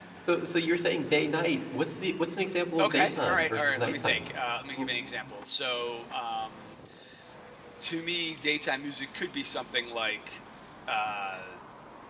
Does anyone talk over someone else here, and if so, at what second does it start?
3 s

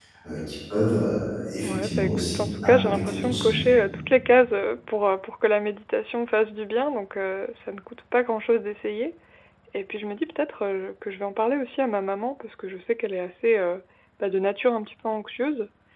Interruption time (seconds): 2 s

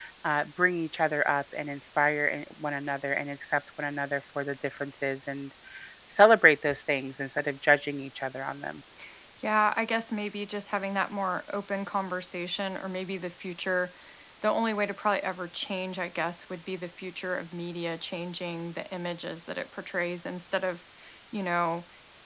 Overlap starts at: none

